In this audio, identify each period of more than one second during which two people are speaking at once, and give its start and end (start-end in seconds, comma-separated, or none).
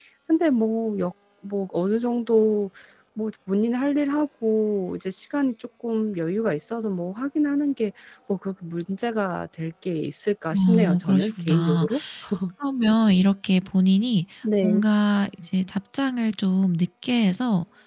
10.5-11.9